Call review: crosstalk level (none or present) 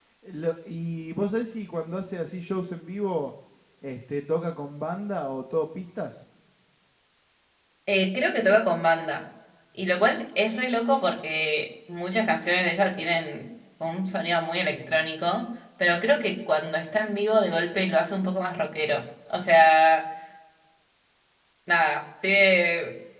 none